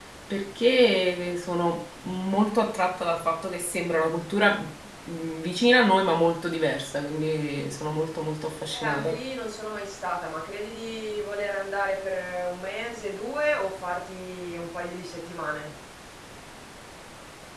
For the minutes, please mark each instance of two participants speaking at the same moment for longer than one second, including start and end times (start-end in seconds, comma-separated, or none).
none